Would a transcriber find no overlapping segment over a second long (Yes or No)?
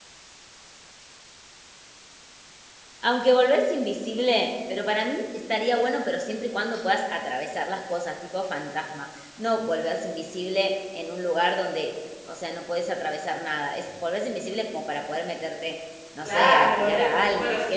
No